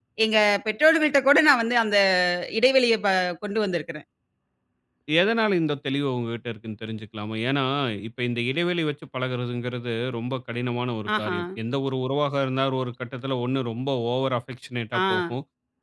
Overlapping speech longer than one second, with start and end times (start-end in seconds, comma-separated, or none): none